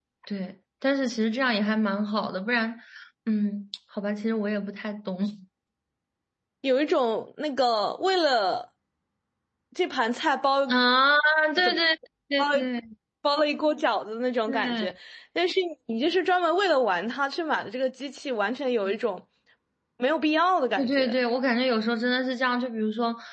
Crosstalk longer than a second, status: none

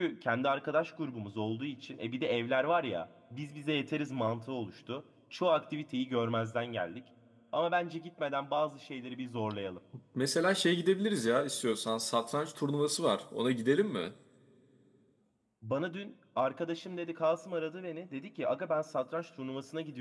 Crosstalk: none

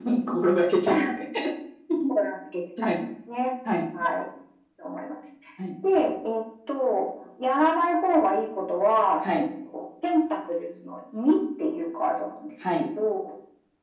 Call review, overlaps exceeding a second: none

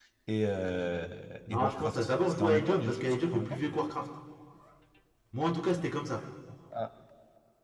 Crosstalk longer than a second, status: present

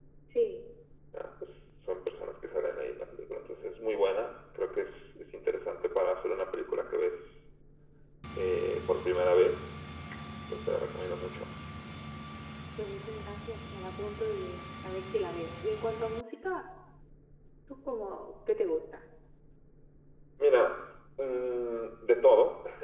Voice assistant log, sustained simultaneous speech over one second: none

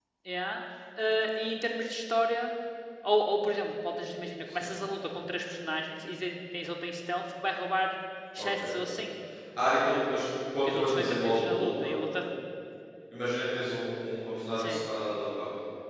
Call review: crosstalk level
present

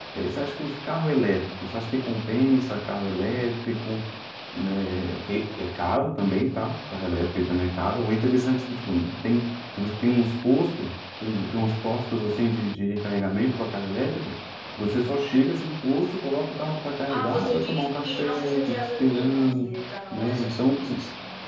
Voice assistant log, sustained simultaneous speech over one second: present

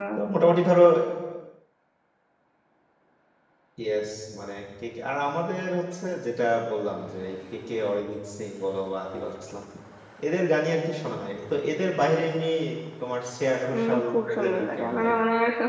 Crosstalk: present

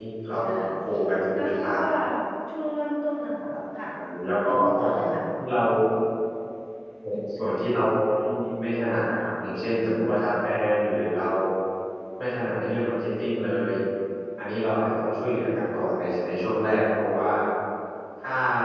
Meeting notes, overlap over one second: none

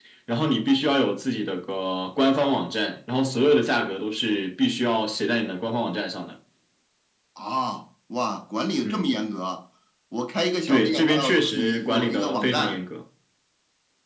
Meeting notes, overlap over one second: present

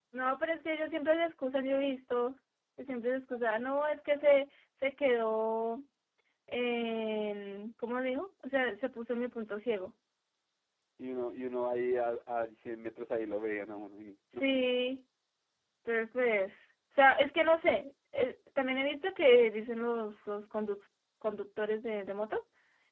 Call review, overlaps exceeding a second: none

